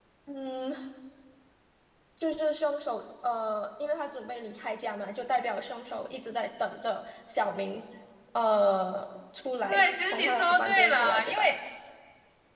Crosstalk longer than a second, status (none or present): present